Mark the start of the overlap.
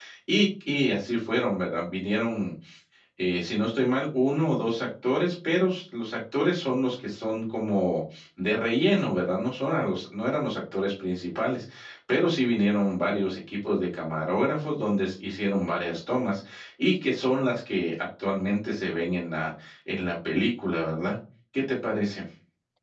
none

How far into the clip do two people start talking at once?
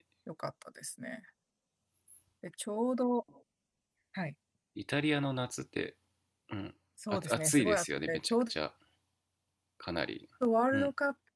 7.1 s

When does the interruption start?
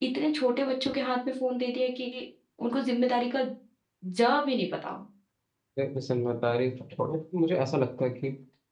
none

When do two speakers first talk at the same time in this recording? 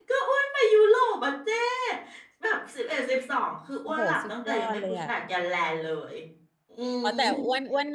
3.9 s

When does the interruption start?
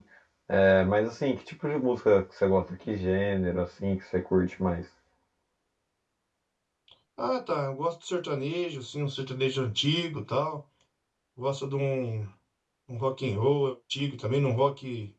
none

